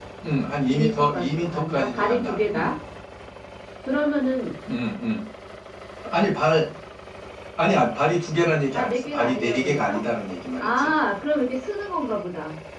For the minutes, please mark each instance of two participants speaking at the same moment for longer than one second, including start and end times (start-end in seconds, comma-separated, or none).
0.7-2.8, 8.7-10.0